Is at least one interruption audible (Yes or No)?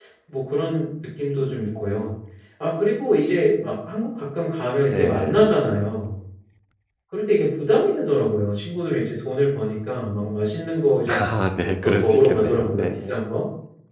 Yes